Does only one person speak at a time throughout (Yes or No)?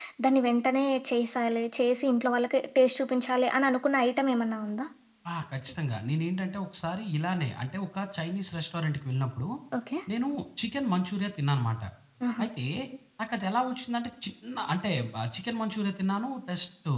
Yes